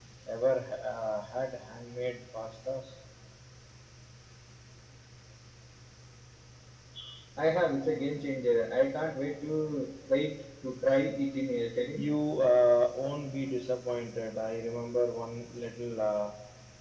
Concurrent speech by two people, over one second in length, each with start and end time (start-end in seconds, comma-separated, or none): none